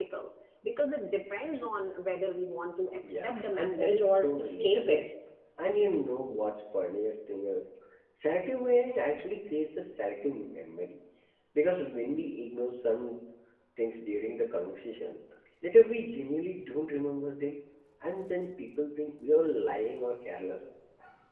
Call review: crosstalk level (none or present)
present